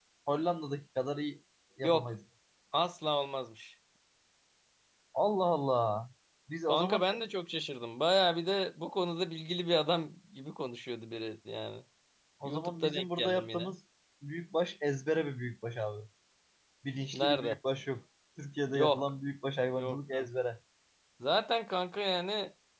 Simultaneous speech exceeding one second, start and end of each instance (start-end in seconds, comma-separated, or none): 12.4-13.7